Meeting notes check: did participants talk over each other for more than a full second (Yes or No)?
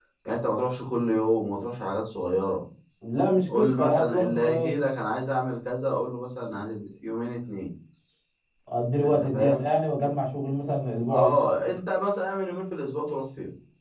Yes